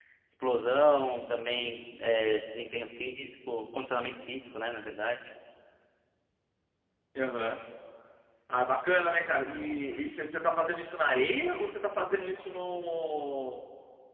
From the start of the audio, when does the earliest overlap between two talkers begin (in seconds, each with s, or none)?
none